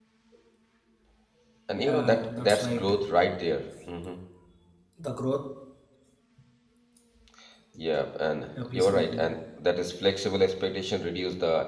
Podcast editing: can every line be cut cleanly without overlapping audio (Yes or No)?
No